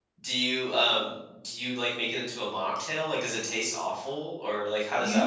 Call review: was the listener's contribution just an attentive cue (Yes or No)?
No